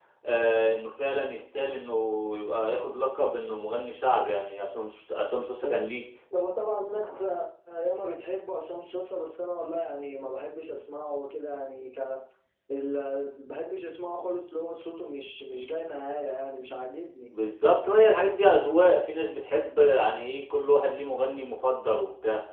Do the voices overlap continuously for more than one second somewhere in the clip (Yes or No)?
No